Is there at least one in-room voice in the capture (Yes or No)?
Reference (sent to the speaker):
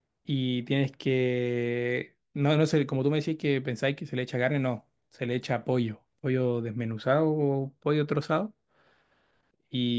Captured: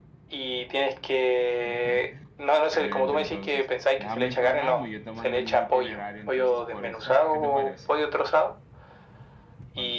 Yes